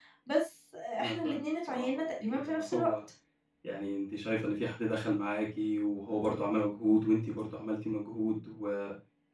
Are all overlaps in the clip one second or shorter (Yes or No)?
No